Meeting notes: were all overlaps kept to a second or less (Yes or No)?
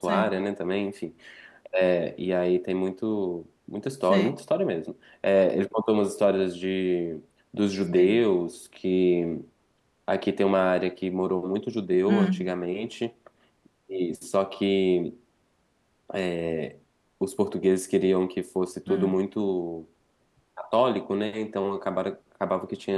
Yes